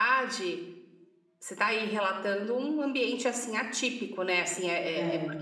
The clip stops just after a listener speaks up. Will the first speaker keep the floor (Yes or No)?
Yes